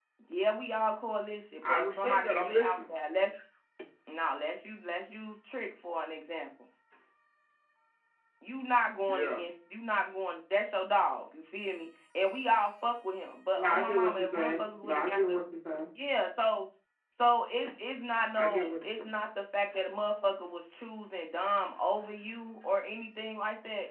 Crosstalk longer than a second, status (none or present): present